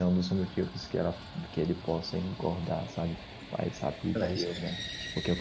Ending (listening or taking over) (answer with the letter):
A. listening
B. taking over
A